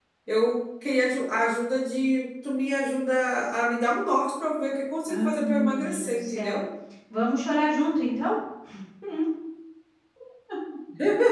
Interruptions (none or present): present